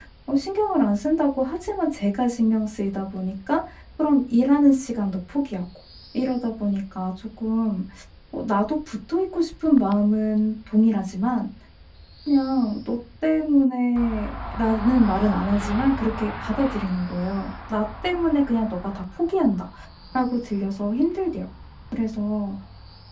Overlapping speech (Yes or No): No